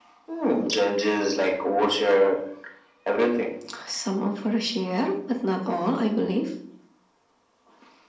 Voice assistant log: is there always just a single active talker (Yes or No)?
Yes